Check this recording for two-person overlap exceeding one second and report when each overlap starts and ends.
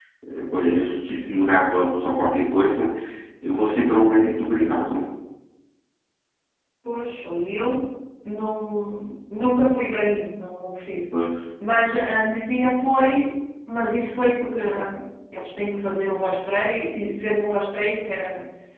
none

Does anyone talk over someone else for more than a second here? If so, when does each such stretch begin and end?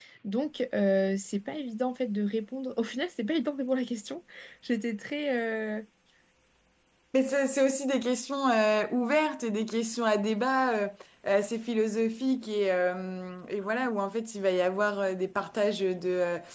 none

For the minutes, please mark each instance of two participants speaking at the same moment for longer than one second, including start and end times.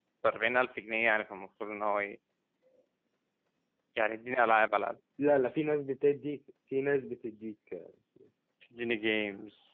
none

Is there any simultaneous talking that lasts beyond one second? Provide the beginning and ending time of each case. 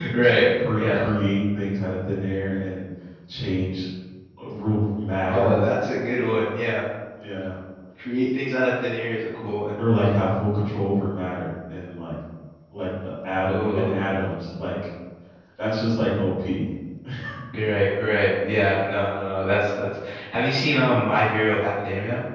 none

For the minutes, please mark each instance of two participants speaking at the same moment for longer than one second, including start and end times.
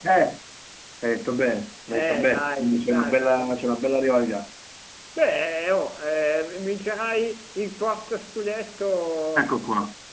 1.9-3.6

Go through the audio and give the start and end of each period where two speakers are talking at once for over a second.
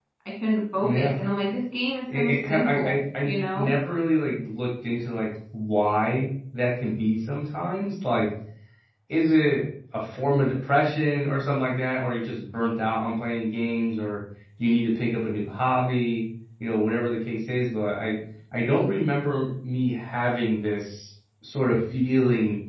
2.1-3.7

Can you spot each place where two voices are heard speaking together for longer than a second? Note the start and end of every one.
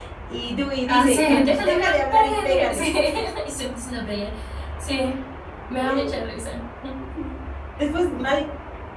0.9-2.8

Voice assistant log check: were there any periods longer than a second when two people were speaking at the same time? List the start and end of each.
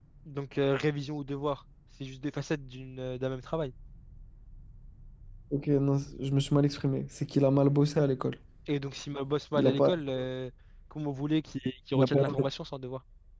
none

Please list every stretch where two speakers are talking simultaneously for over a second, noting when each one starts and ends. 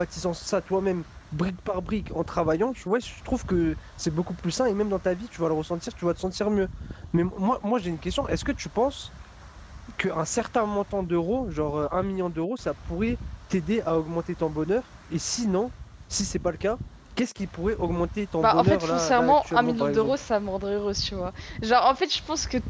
18.4-20.1

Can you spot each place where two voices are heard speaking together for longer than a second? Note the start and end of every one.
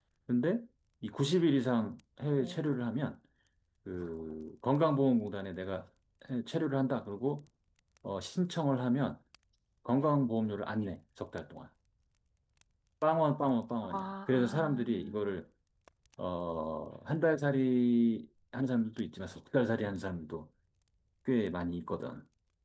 13.9-15.3

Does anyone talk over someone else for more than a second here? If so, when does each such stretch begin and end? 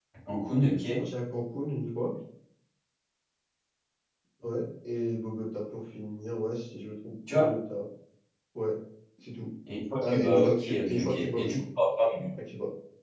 10.0-11.6

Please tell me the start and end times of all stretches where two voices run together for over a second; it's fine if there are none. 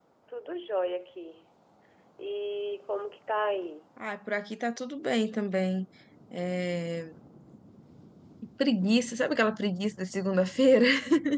none

